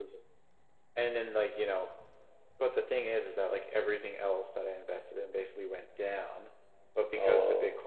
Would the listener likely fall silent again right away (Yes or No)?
Yes